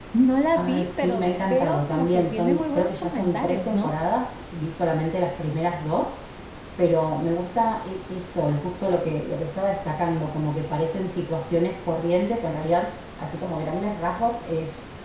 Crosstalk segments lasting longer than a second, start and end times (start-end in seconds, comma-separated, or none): 0.6-3.9